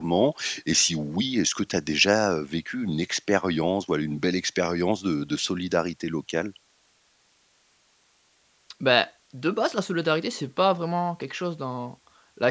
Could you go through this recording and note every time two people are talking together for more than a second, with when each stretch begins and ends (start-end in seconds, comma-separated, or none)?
none